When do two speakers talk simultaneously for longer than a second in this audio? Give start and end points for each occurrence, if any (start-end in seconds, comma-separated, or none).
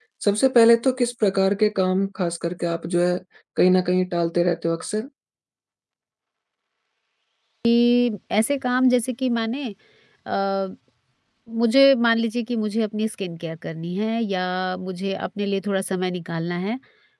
none